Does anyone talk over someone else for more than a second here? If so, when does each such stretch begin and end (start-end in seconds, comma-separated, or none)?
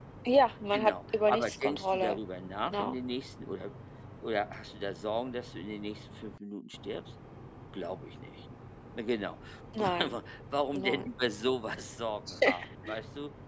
0.7-2.2